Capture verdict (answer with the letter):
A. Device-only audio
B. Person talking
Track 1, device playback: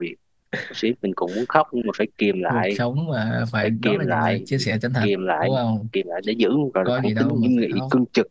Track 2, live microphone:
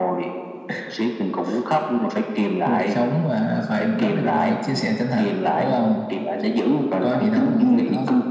A